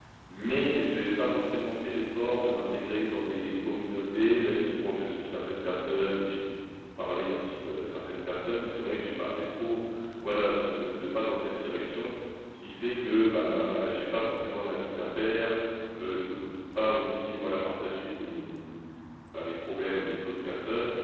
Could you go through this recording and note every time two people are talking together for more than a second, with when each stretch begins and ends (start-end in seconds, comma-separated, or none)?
none